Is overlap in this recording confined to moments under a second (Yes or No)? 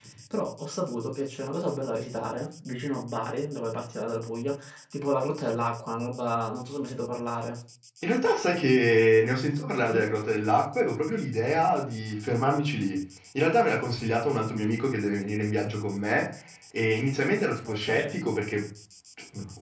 Yes